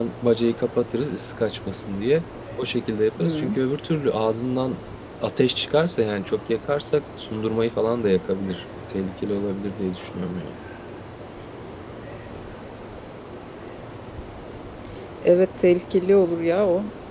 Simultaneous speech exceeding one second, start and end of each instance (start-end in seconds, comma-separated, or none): none